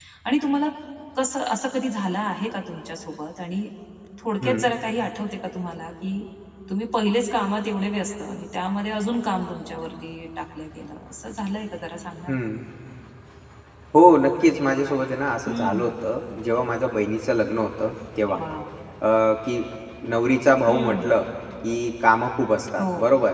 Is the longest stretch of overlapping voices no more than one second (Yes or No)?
Yes